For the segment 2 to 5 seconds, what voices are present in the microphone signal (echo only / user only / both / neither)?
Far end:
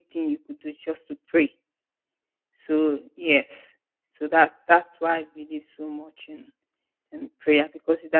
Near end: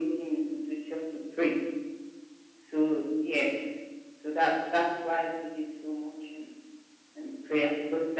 echo only